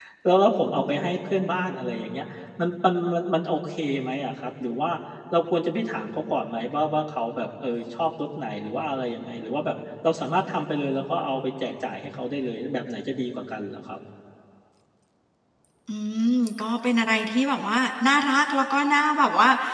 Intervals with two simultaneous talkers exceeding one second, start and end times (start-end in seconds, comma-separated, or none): none